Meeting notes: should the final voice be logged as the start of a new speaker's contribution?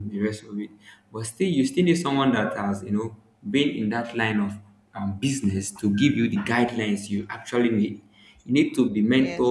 No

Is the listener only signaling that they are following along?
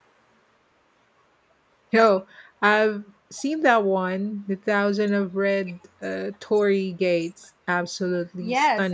No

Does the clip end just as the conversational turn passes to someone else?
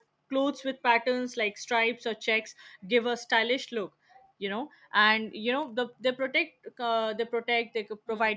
No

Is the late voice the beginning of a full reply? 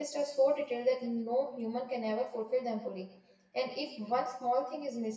No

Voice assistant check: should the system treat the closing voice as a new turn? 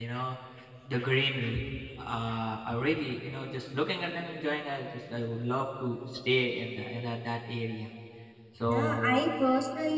Yes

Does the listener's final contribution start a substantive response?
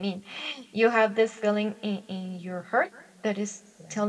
No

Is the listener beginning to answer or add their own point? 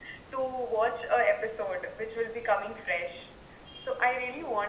Yes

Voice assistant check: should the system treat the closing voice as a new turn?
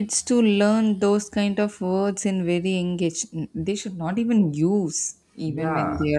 Yes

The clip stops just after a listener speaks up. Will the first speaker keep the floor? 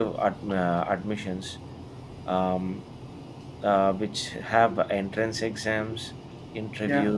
Yes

